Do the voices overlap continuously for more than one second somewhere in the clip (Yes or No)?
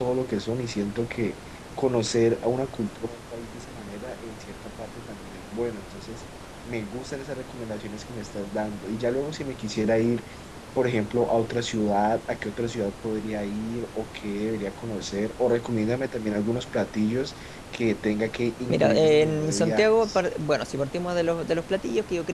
Yes